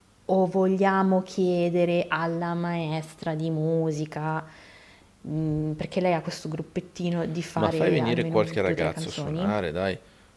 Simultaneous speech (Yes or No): Yes